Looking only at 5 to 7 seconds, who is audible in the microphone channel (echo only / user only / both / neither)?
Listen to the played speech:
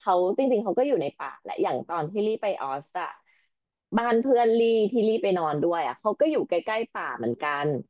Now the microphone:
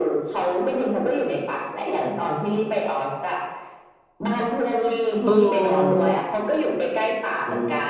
both